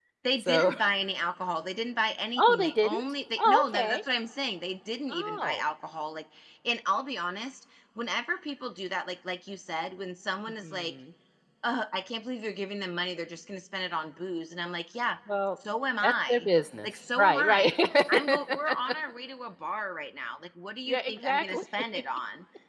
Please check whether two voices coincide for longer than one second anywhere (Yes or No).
Yes